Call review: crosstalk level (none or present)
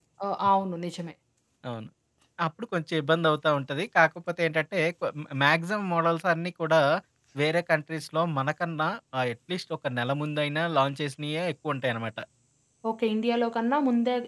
none